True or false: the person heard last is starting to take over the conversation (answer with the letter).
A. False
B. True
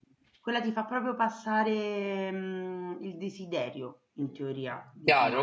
B